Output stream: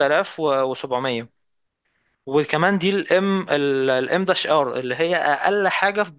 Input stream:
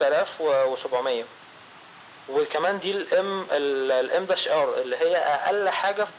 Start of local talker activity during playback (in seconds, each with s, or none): none